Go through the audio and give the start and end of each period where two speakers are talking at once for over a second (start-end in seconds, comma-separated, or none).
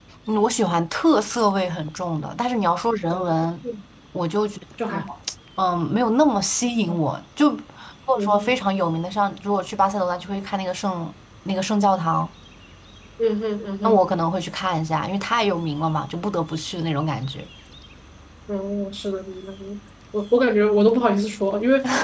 none